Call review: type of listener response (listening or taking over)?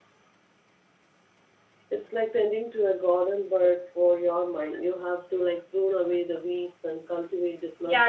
taking over